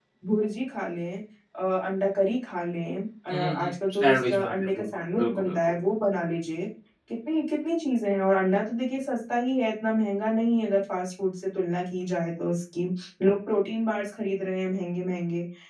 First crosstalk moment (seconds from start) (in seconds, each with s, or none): 3.3 s